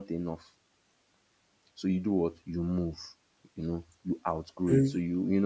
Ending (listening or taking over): listening